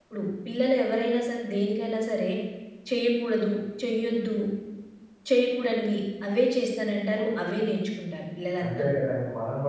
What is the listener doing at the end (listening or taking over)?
taking over